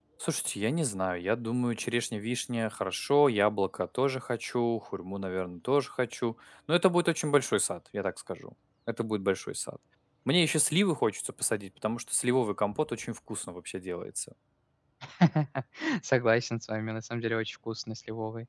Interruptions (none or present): none